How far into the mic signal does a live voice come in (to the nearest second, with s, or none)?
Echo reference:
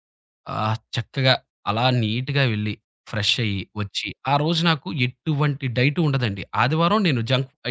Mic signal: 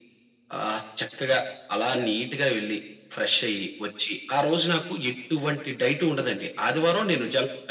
none